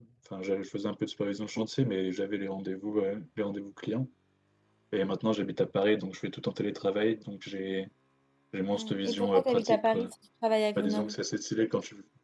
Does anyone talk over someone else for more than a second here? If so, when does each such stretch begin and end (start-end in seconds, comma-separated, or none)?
8.7-10.1